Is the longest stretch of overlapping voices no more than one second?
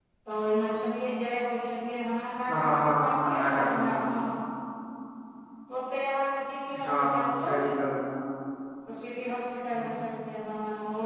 No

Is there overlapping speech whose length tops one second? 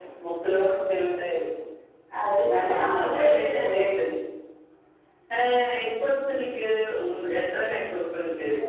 Yes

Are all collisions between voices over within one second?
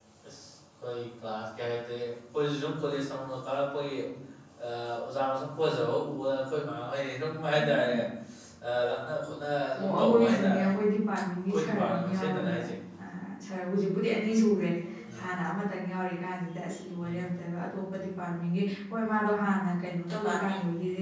No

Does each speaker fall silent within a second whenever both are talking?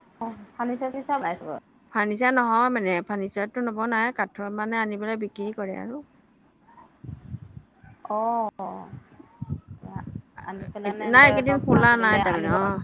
No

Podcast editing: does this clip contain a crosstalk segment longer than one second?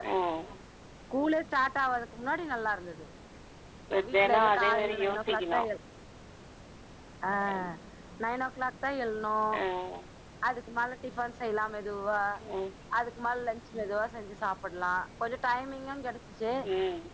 Yes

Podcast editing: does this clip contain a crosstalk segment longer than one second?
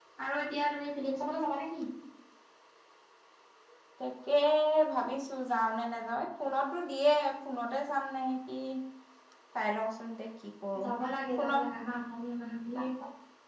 No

